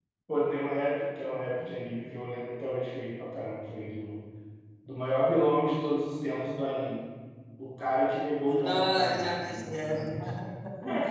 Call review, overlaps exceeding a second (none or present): present